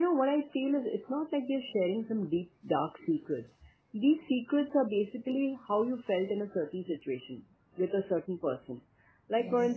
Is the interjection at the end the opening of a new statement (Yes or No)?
No